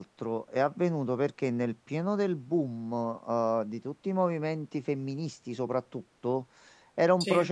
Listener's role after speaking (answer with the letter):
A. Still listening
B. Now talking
A